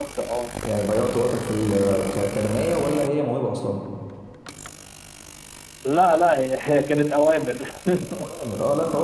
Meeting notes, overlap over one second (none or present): none